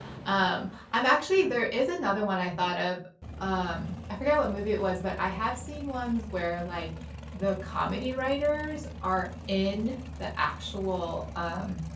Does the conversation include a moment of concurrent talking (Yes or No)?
No